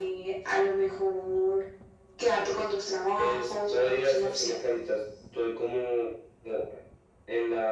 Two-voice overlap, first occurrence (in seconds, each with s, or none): 3.2 s